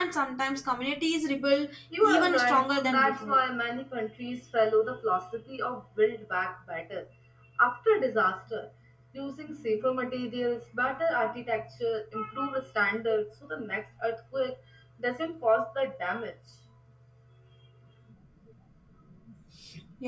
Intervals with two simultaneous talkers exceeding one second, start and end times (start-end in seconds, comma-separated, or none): 2.0-3.4